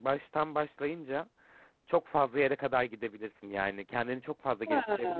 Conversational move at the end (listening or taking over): listening